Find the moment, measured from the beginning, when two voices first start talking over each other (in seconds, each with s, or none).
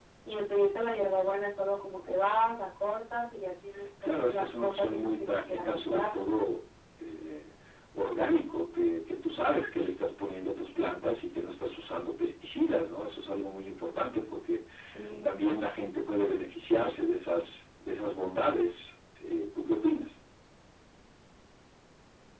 4.0 s